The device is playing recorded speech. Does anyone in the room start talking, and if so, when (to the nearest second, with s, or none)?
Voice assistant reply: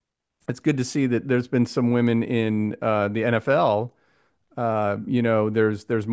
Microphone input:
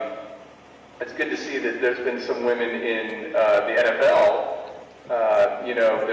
none